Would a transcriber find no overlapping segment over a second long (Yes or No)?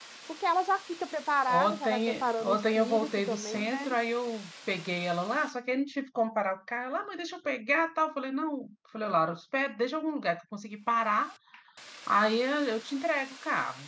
No